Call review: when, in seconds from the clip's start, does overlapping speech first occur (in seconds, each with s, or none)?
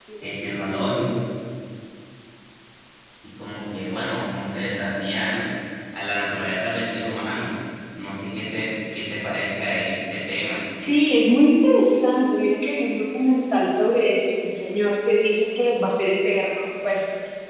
none